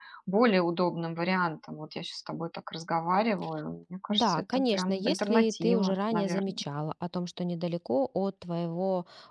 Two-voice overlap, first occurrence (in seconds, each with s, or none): 4.1 s